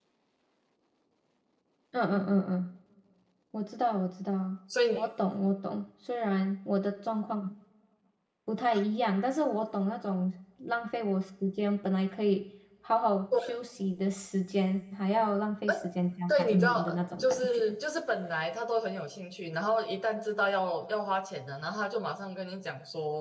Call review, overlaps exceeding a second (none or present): present